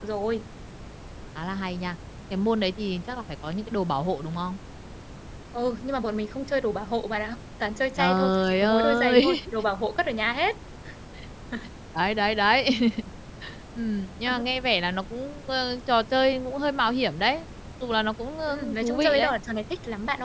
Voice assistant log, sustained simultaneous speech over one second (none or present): present